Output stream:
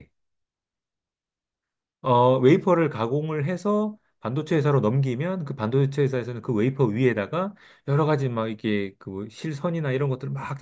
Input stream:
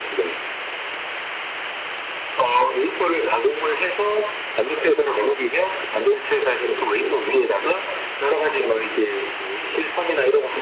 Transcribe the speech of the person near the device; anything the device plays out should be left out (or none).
none